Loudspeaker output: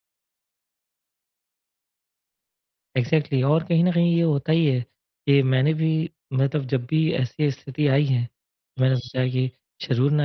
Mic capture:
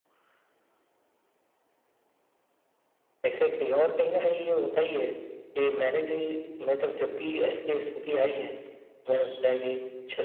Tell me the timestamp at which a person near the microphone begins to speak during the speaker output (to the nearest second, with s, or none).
none